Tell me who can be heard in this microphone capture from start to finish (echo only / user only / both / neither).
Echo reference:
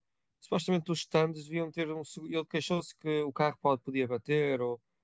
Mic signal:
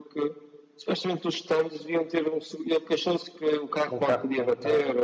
both